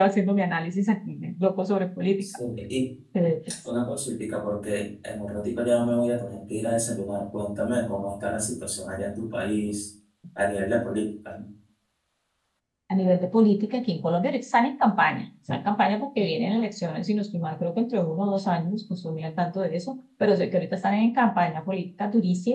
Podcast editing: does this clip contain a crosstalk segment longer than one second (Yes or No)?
No